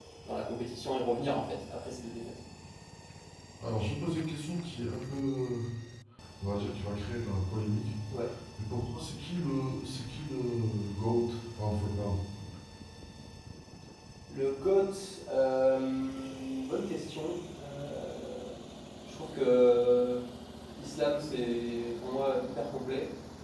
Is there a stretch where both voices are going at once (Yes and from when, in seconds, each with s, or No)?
No